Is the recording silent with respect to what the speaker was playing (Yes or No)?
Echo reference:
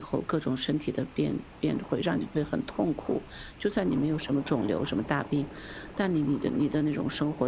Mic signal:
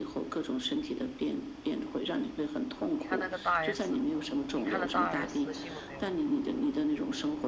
No